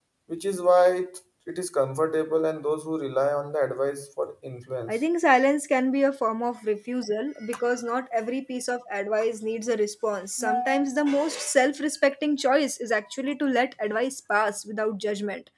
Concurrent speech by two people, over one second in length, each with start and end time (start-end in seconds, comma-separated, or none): none